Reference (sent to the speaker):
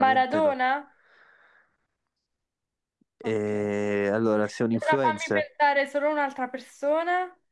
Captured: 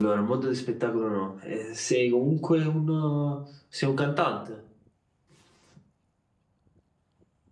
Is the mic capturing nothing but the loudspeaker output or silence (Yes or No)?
No